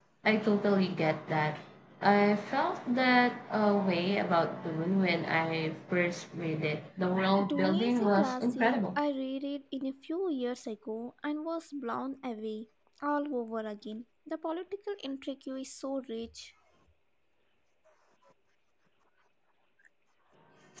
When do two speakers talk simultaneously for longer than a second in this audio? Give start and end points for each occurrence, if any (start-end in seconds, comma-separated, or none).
7.4-9.0